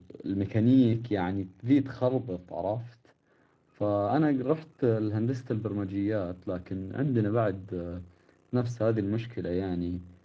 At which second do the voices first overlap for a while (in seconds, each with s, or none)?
none